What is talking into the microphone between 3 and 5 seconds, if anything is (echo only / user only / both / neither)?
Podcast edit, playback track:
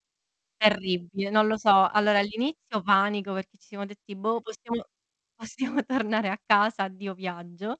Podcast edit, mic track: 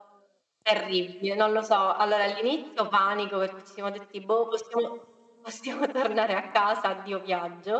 echo only